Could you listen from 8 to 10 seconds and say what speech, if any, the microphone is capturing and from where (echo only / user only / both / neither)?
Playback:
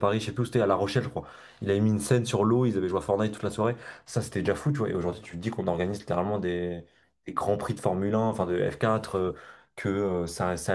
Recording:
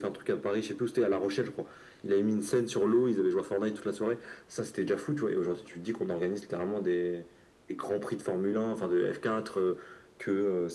echo only